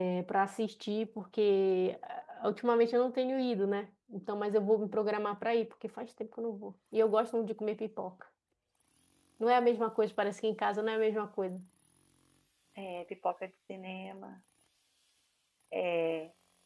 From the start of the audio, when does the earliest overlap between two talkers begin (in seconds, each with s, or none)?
none